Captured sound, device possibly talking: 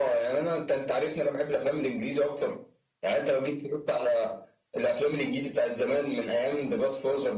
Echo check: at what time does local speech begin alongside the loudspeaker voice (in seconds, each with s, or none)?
none